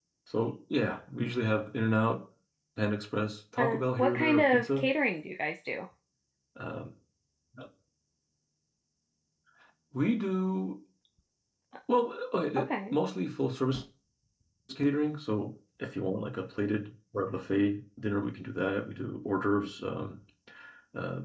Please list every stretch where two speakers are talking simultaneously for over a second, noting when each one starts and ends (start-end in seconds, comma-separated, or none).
3.6-4.9